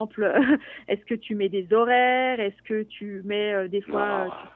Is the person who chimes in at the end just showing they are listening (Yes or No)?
Yes